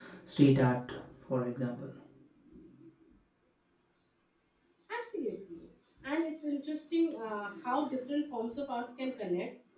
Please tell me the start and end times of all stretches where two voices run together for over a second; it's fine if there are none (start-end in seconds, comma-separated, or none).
none